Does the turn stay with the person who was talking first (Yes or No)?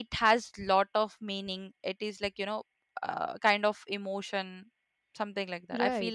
No